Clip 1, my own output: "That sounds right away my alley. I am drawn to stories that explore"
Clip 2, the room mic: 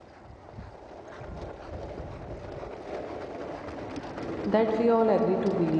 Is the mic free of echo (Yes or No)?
Yes